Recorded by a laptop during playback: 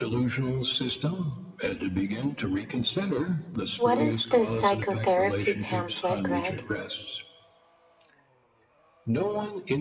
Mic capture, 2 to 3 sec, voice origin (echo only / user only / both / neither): echo only